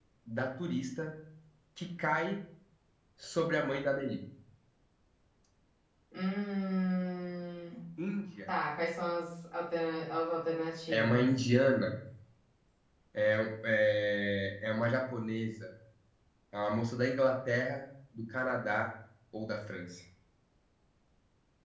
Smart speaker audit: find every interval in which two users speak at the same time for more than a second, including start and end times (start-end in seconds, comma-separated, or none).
none